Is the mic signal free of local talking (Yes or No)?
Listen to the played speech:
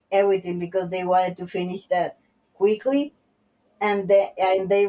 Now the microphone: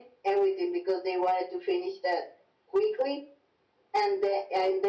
Yes